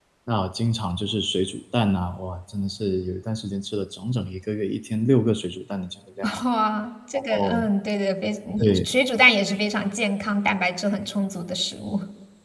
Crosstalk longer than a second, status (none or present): none